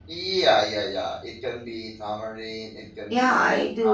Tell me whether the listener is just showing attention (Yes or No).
No